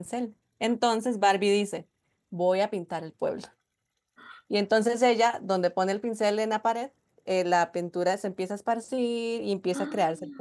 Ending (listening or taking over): listening